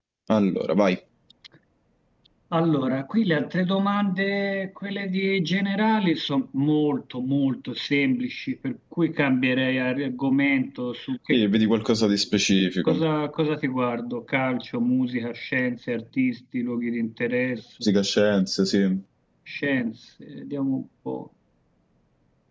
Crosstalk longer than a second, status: none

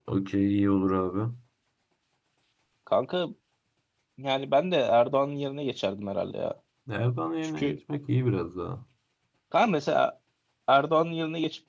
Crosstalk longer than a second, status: none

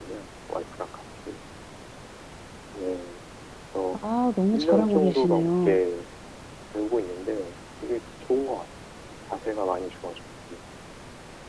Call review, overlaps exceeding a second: present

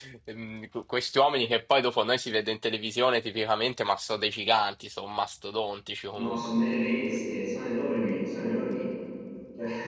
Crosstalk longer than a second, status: none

